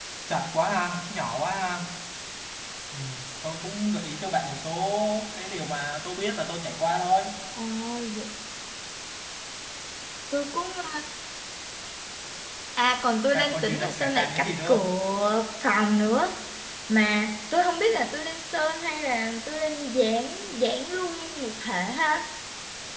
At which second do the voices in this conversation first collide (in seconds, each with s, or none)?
13.3 s